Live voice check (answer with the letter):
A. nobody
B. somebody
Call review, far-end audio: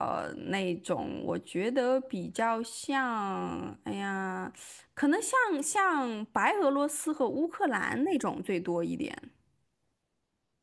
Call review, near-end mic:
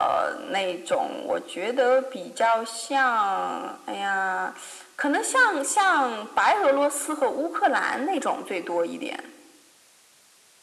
A